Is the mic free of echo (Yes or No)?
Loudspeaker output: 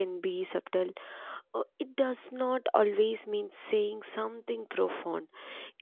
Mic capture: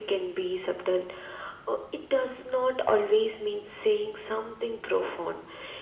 No